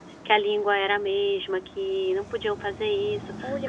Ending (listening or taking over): taking over